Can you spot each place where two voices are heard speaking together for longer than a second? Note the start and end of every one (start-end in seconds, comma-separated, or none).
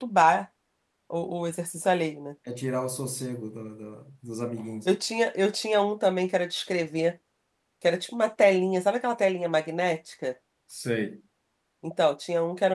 none